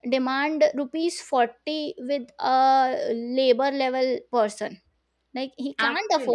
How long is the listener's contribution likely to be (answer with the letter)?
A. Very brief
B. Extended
A